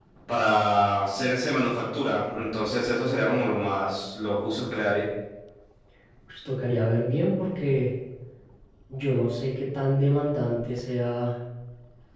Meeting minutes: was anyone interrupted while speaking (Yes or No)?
No